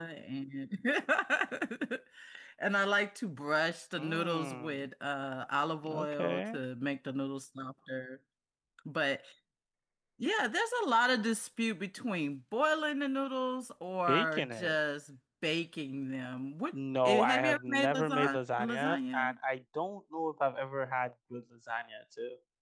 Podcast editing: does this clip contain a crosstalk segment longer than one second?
Yes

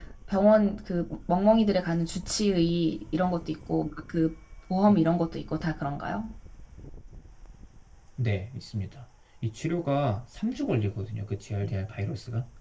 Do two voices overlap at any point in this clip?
No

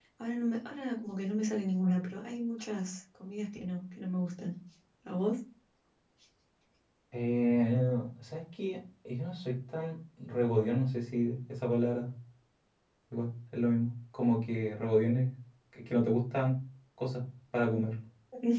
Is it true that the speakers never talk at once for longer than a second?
Yes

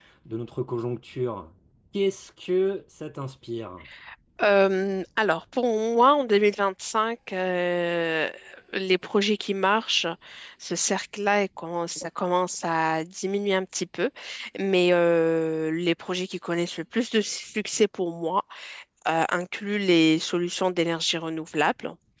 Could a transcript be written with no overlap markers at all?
Yes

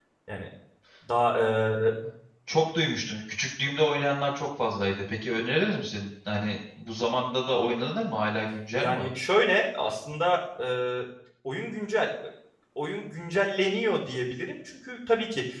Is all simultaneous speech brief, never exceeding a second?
Yes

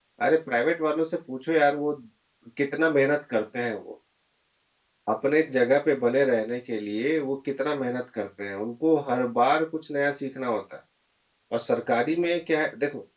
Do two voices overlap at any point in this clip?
No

